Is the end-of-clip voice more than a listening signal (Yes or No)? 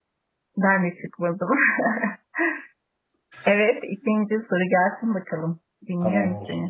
Yes